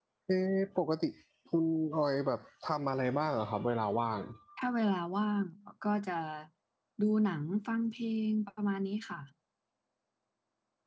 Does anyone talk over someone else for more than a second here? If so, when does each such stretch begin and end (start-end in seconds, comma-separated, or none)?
none